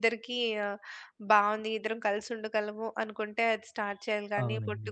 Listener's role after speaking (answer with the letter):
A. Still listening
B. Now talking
A